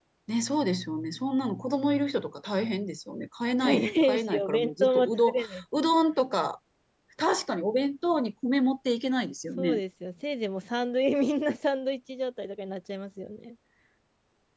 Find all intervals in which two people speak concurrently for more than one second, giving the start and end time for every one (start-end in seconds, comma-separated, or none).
3.6-5.4